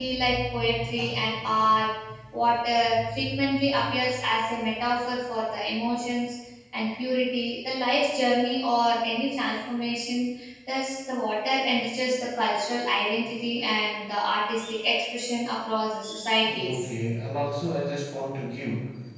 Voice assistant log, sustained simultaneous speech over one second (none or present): none